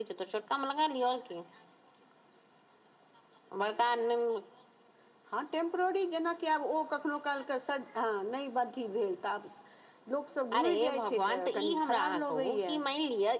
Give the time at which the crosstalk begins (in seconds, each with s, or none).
10.6 s